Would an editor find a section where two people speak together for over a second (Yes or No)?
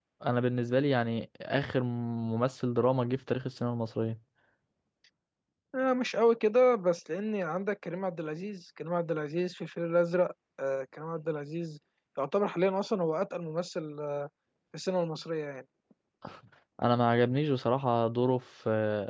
No